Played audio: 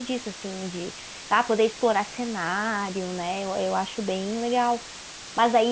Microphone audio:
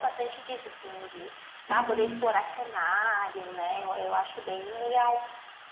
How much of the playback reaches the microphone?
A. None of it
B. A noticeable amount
B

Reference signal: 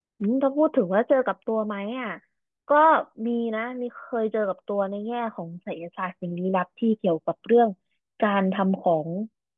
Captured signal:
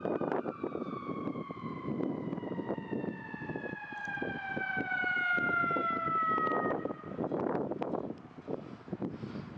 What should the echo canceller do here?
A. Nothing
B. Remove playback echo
A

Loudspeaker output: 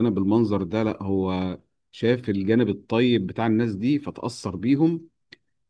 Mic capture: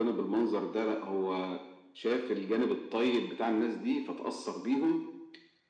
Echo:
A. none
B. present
B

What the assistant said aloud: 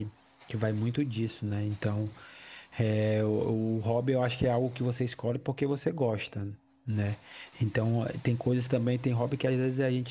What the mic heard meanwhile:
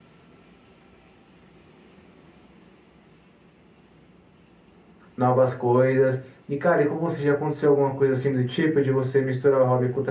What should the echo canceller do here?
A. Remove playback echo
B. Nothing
B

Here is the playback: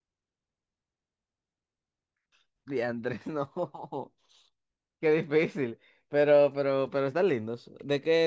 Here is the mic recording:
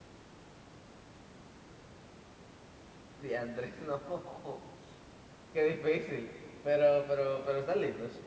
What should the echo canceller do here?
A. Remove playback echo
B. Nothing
A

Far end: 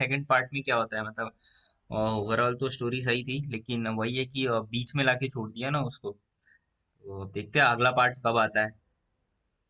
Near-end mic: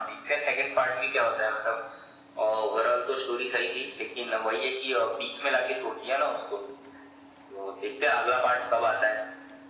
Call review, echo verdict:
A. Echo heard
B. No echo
A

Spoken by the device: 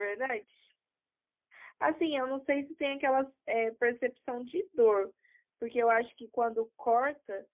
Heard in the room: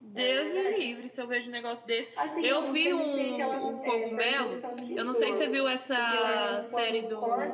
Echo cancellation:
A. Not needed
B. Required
B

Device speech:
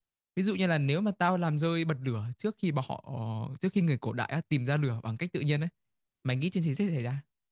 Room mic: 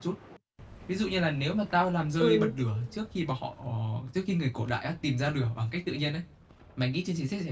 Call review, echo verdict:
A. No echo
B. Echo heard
B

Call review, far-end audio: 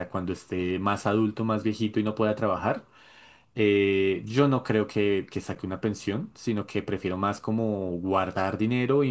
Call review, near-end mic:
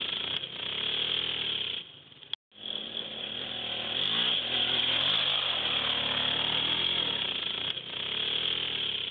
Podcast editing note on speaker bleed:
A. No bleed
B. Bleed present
A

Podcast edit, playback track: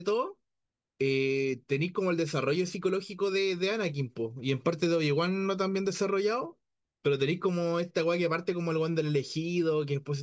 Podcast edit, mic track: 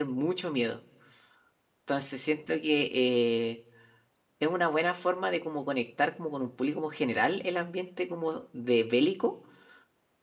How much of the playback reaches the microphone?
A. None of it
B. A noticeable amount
A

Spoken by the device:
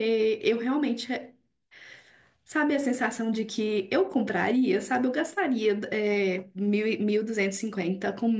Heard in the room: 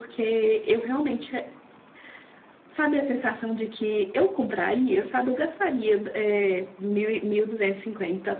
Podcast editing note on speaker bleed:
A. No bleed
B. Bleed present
B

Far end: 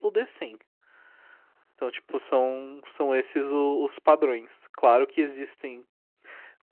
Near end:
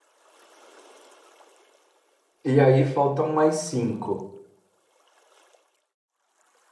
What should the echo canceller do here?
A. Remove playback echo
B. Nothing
B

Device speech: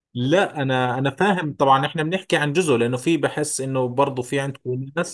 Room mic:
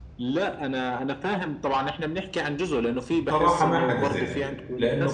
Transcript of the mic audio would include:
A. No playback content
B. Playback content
B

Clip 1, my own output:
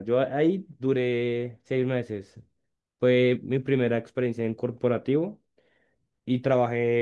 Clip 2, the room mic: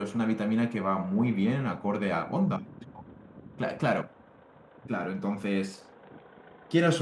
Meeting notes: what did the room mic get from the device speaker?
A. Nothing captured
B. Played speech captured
A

